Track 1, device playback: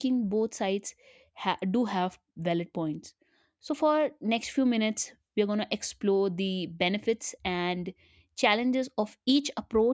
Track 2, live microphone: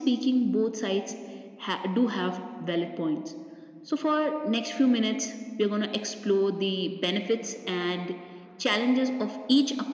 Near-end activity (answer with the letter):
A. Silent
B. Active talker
A